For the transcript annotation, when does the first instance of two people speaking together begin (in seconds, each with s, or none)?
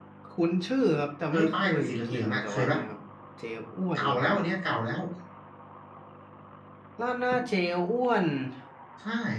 1.3 s